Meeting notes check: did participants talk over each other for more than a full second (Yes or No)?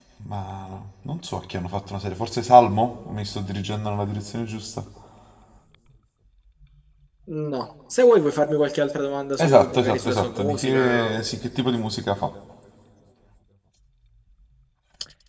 Yes